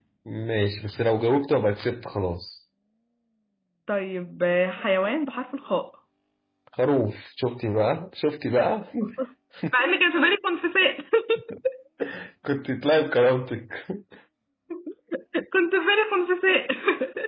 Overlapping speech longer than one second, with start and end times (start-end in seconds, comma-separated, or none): none